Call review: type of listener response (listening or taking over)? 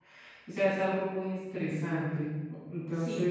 taking over